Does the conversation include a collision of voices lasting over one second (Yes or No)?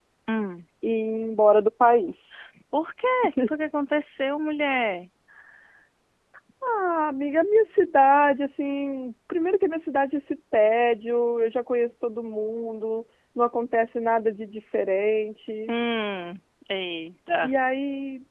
No